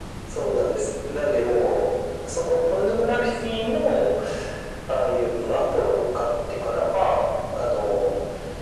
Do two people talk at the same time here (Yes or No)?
No